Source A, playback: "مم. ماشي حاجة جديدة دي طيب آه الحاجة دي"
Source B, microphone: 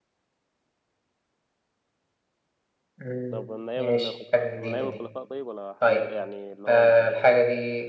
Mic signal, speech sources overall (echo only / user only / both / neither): both